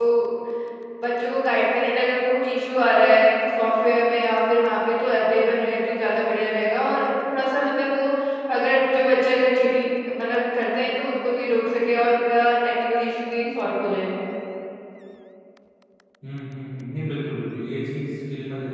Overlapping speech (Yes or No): No